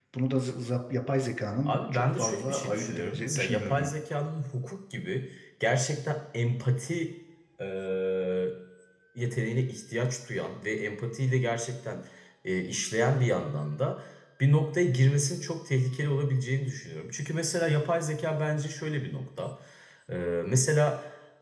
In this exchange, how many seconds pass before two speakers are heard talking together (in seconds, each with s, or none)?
1.7 s